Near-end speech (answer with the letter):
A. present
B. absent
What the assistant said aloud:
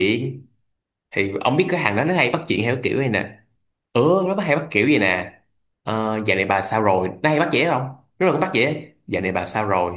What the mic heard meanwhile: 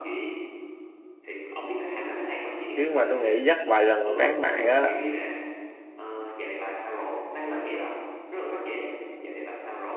A